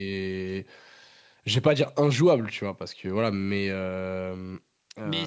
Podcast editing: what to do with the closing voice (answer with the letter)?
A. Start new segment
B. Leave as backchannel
A